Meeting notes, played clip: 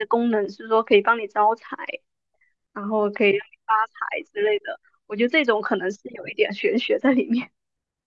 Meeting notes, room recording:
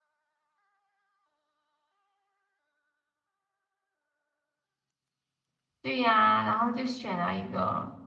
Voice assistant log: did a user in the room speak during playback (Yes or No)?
Yes